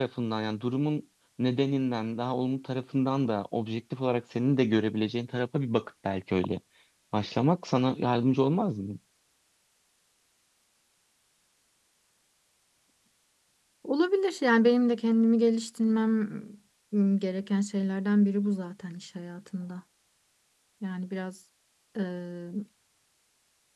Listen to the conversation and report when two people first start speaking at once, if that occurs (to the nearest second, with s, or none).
none